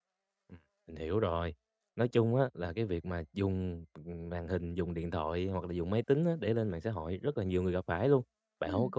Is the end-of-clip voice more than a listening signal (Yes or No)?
No